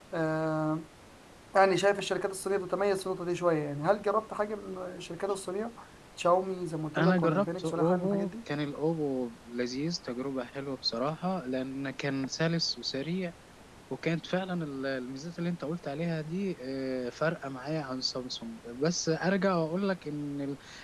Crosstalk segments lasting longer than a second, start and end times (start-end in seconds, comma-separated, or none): 7.0-8.3